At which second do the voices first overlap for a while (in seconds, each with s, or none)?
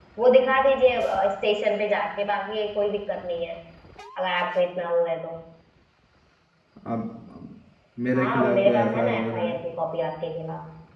8.1 s